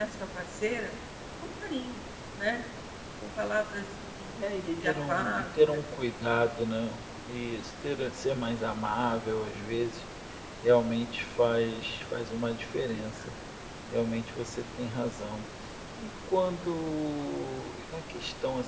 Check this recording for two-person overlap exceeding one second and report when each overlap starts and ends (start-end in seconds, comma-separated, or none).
4.5-5.8